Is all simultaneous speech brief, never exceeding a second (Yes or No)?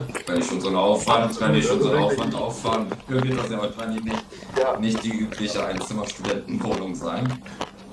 No